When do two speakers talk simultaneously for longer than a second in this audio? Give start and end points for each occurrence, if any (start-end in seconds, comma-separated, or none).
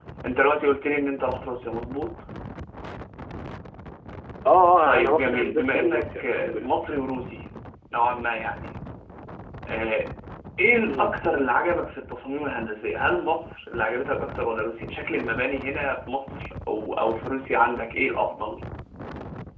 4.8-6.7